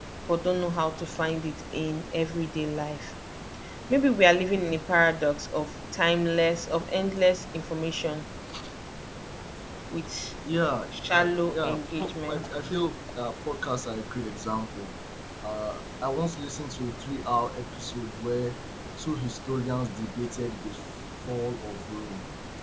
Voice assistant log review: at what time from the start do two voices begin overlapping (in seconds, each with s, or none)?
10.9 s